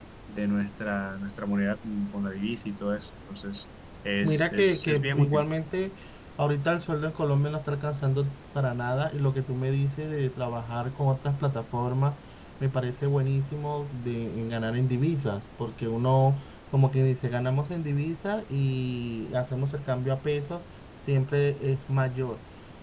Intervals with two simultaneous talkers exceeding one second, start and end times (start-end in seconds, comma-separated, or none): 4.2-5.5